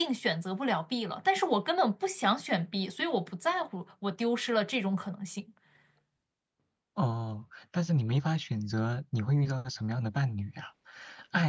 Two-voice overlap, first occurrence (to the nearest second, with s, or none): none